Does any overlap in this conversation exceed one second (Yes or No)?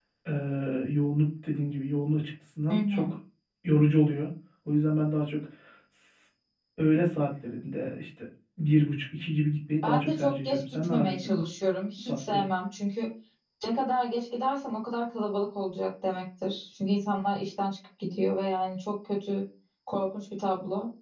Yes